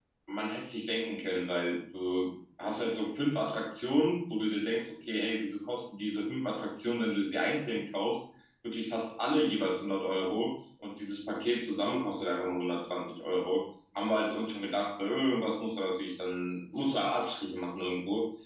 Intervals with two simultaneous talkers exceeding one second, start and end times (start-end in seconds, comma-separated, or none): none